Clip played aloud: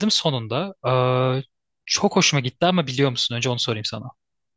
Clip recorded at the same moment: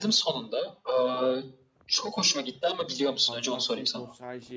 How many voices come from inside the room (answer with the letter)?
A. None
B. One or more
B